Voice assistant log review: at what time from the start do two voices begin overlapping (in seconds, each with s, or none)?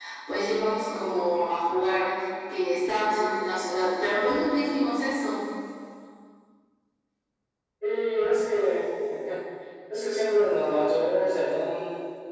none